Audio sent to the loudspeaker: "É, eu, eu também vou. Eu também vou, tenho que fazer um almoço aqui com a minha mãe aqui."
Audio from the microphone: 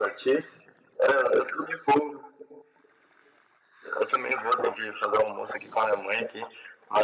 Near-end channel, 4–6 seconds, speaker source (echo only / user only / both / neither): echo only